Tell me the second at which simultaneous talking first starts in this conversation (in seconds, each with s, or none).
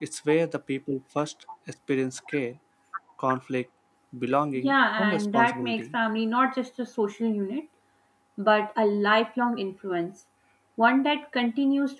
4.5 s